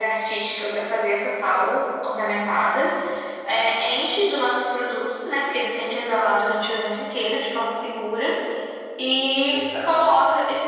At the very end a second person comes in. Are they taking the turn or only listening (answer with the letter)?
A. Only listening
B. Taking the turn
A